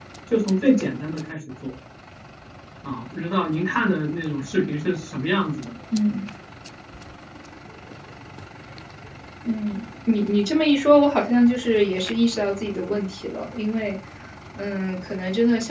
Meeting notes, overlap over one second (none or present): none